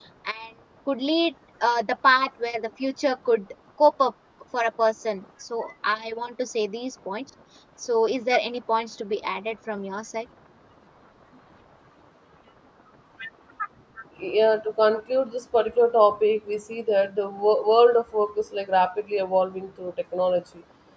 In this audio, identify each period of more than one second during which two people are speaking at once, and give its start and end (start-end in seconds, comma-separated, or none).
none